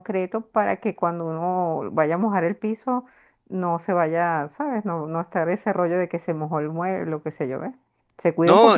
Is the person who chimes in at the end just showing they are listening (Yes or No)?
No